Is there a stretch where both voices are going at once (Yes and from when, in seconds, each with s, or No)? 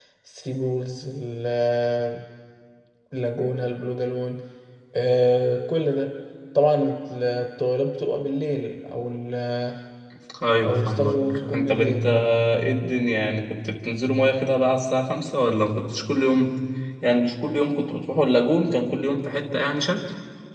Yes, from 10.7 s